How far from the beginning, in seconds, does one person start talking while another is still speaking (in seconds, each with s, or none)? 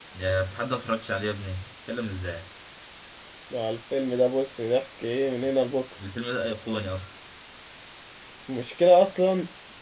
none